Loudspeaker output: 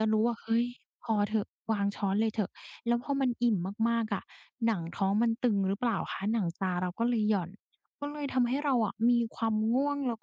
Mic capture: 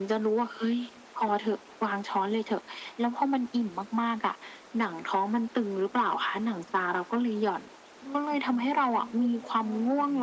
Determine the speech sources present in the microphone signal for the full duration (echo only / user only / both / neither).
both